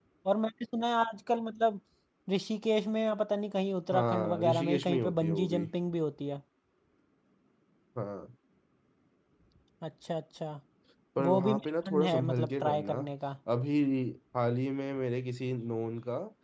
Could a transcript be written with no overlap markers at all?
No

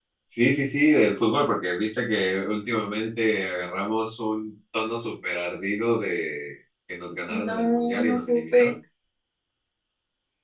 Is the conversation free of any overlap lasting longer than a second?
No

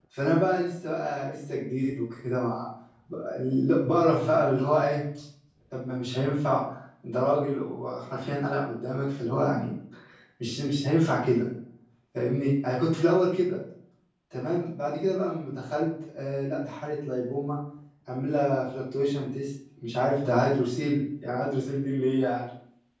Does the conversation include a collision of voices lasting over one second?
No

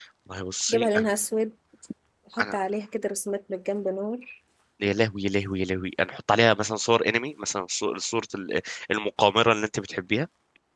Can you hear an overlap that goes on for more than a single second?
No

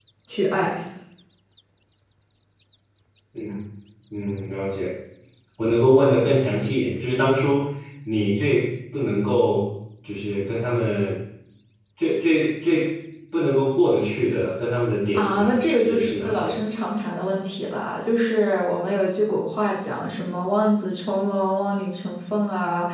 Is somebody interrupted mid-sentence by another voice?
Yes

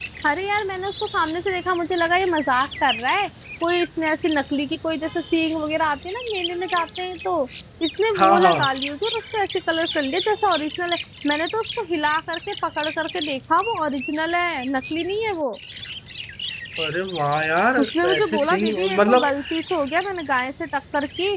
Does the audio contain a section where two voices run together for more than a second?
Yes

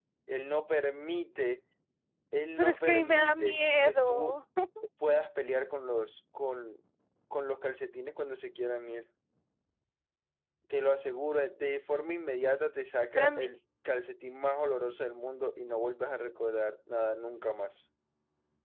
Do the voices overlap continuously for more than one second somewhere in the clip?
Yes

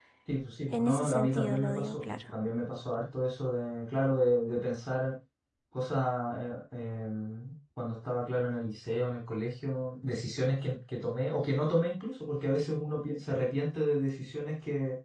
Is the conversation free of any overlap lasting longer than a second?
No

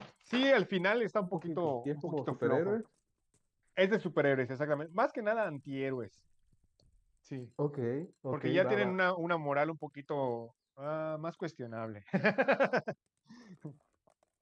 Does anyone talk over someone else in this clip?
Yes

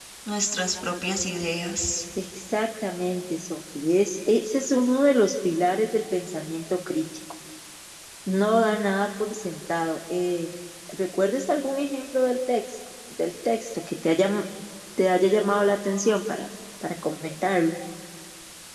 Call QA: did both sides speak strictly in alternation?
Yes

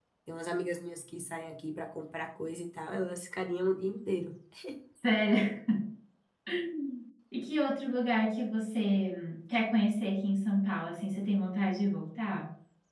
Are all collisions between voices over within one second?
Yes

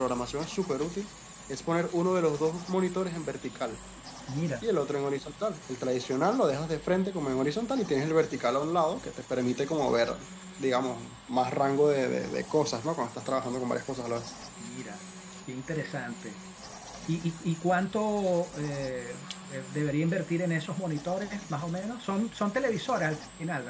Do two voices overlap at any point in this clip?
No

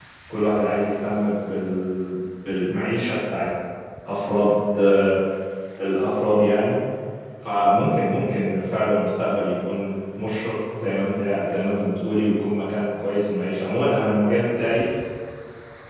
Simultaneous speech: No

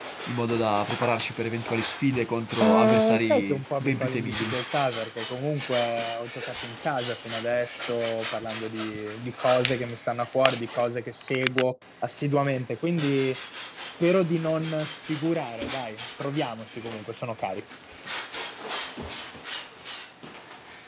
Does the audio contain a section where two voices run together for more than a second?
Yes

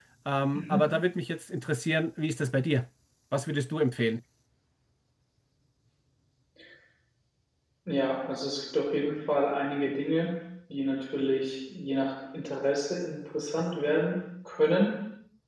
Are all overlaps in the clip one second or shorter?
Yes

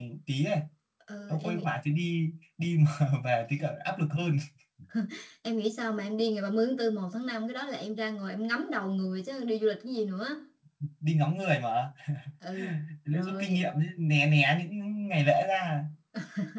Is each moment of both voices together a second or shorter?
Yes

